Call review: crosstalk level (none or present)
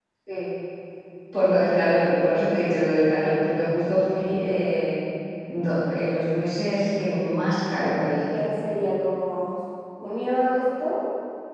none